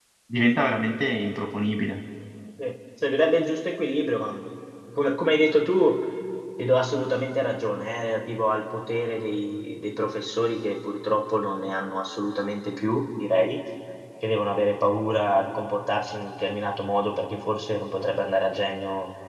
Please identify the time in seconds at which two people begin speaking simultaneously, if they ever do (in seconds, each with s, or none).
none